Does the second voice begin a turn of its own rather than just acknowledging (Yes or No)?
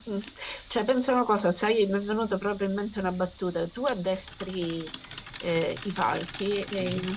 No